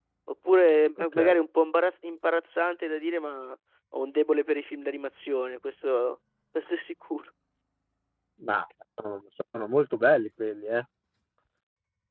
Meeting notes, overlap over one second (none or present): none